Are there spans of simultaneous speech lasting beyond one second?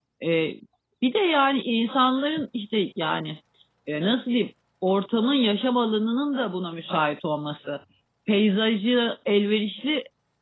No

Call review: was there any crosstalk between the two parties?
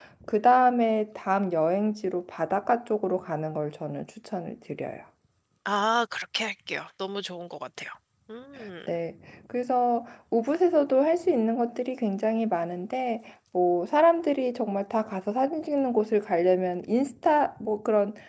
No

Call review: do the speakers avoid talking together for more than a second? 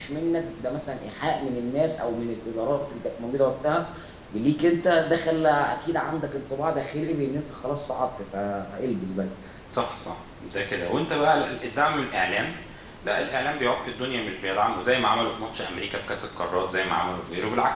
Yes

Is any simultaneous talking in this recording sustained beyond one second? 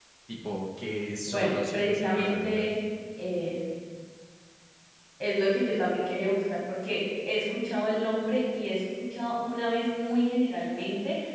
Yes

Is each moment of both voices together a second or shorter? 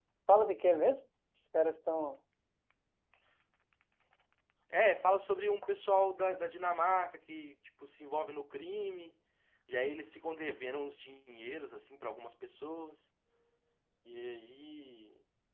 Yes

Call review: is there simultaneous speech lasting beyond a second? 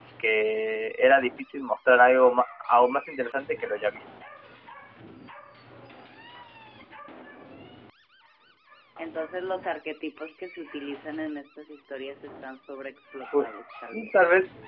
No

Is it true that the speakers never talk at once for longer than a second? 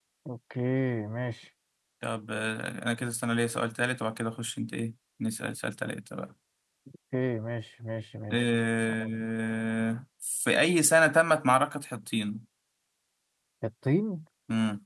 Yes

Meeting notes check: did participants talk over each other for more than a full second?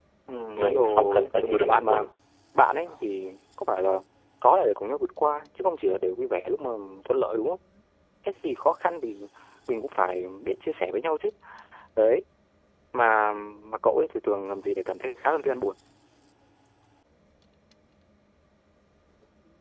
Yes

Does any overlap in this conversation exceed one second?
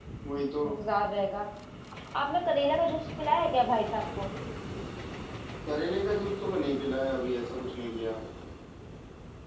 No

